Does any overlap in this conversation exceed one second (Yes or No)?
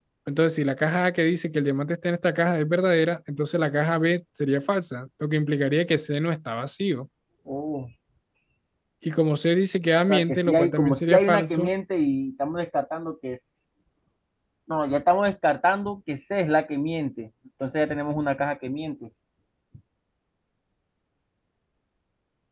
Yes